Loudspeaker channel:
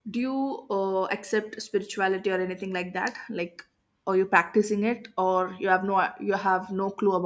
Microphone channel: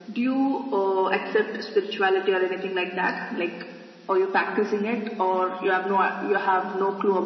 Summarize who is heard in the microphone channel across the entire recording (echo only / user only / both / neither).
echo only